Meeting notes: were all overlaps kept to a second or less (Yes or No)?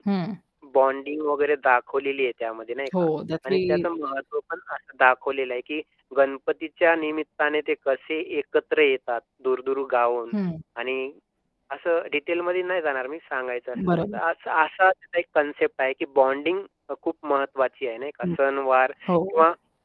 Yes